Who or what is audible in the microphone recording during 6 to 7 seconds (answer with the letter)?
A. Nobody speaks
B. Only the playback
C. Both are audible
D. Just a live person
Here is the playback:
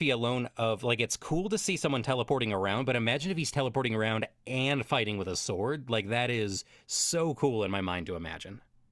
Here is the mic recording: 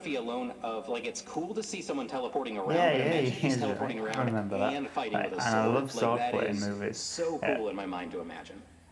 C